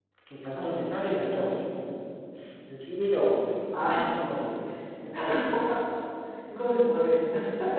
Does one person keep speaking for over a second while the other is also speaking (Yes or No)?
No